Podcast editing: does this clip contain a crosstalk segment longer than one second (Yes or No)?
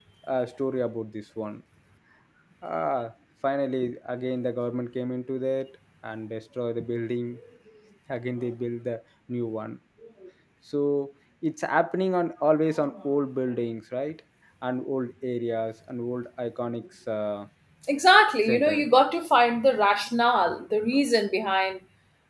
No